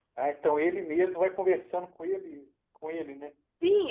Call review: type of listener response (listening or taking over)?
taking over